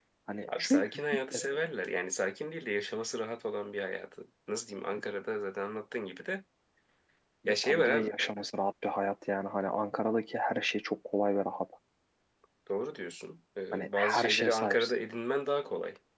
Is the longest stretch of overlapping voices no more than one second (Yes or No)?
No